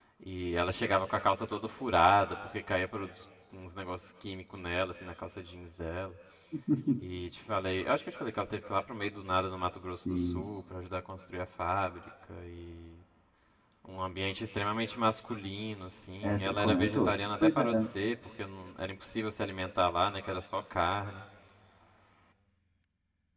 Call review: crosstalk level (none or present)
present